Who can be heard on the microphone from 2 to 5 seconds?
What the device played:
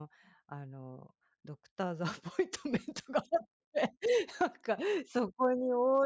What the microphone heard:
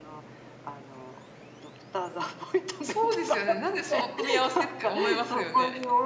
both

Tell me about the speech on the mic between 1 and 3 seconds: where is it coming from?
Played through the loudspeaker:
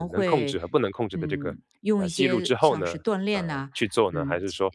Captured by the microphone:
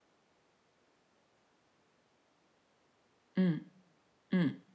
neither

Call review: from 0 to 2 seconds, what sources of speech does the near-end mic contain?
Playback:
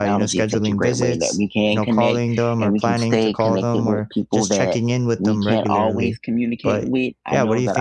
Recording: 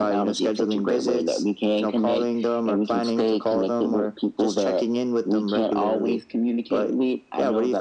echo only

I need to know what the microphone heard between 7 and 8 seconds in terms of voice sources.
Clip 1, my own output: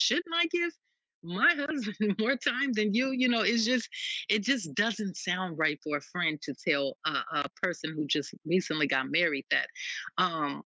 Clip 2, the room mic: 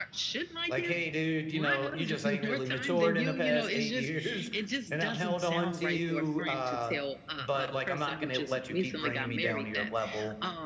both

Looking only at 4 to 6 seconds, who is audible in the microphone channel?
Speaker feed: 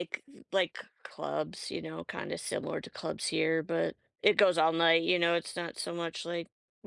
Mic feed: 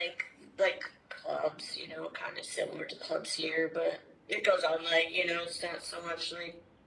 echo only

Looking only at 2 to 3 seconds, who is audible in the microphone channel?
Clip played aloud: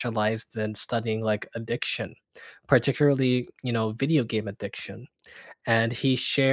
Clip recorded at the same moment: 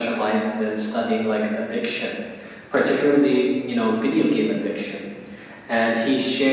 echo only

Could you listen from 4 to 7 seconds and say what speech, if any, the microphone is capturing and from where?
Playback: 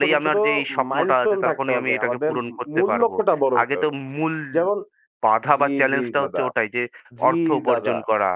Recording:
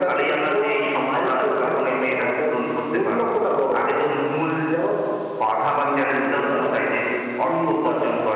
echo only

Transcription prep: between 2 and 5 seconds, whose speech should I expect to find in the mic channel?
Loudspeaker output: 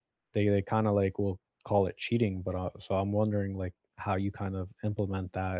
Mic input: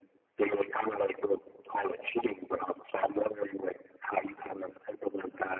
echo only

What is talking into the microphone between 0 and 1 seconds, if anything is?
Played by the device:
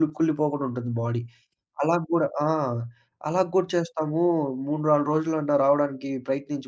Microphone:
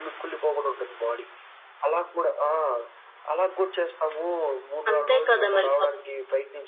echo only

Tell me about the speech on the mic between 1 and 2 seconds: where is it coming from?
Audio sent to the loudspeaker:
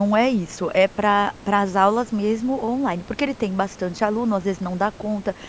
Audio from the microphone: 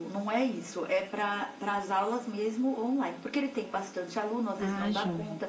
echo only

